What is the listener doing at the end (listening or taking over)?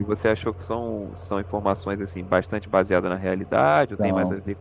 taking over